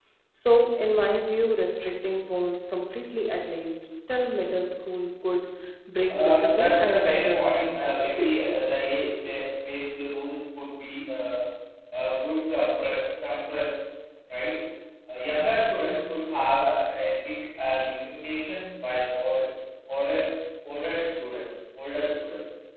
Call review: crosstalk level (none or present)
present